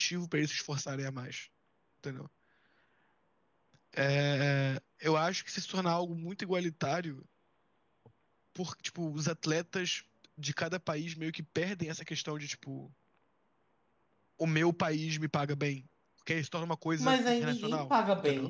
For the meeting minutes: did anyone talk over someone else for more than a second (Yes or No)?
Yes